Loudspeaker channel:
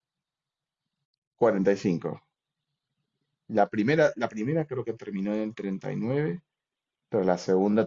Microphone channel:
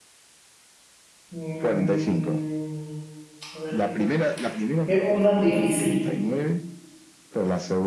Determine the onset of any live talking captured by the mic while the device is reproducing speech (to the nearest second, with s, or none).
1 s